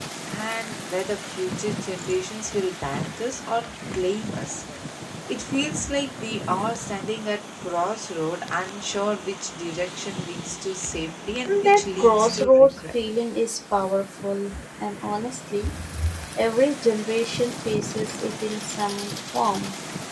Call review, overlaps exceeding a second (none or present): present